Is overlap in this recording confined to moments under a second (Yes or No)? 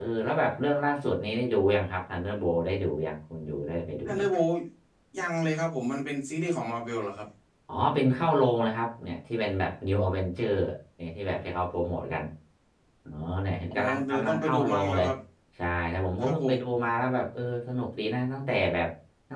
No